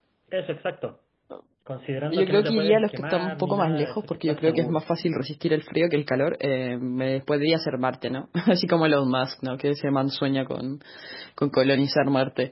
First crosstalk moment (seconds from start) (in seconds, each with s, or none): 2.1 s